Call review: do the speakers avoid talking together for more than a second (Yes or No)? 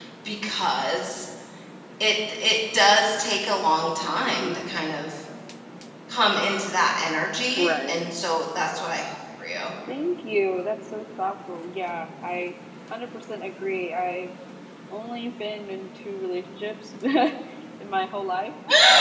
Yes